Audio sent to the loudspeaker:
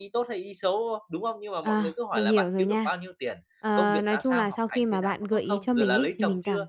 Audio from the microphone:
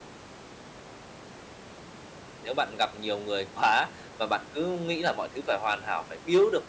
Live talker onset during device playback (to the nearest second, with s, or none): 2 s